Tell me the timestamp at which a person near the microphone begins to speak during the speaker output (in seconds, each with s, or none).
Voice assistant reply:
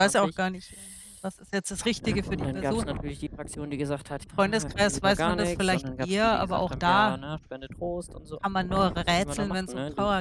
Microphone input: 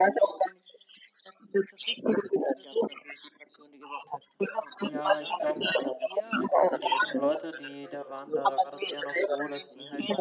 4.8 s